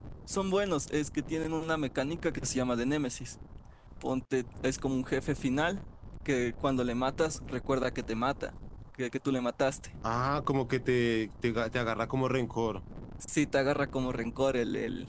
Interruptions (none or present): none